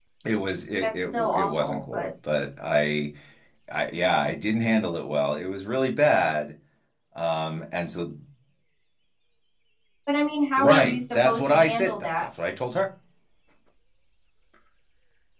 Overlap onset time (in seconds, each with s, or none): 0.8 s